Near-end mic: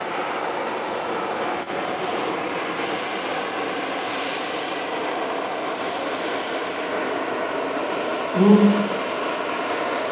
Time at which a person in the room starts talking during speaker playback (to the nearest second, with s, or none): 8 s